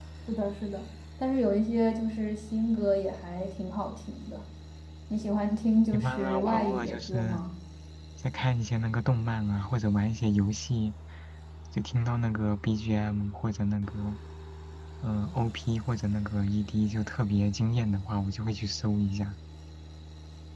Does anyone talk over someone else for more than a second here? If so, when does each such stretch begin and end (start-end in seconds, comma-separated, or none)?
5.9-7.4